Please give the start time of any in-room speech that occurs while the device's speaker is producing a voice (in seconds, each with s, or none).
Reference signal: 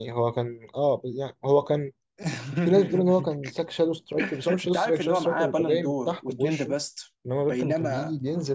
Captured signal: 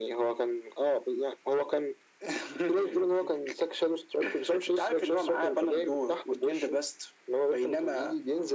none